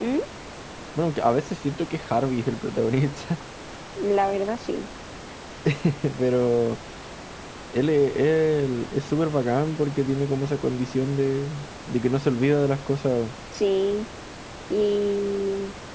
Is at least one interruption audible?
No

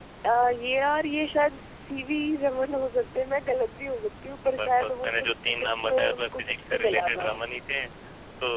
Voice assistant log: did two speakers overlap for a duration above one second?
Yes, from 4.4 s

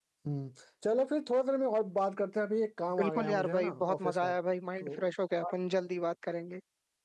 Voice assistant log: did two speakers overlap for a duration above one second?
Yes, from 3.0 s

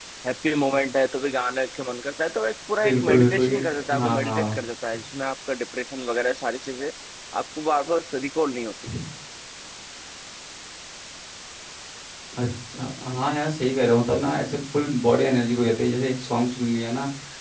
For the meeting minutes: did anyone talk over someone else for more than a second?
Yes, from 2.8 s

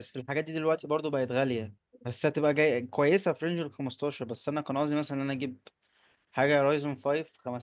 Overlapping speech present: No

